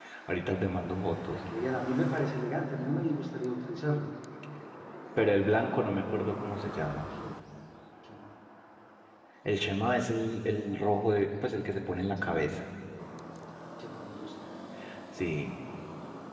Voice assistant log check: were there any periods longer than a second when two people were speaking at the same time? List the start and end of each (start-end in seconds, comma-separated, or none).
none